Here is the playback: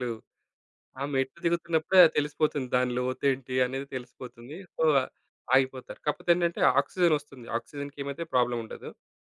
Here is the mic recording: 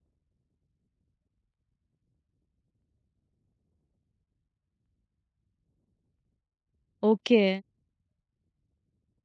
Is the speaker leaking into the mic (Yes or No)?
No